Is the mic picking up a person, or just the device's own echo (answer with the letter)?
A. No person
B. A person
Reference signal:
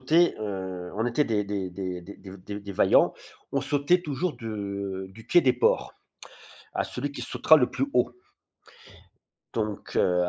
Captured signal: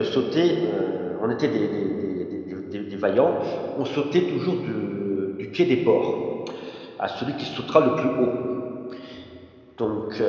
A